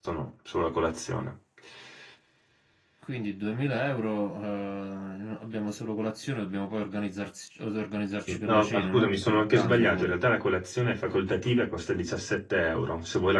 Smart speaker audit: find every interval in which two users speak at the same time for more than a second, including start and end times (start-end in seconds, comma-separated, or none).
8.5-10.1